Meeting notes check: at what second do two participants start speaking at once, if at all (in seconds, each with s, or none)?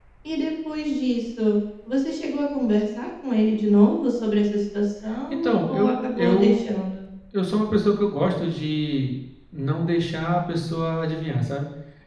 5.3 s